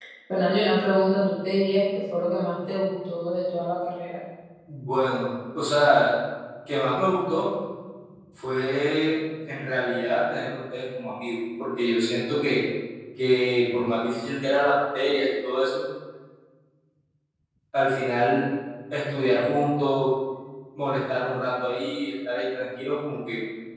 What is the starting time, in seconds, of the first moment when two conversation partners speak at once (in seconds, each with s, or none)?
none